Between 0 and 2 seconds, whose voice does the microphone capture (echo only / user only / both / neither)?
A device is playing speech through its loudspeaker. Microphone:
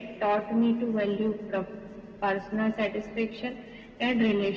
echo only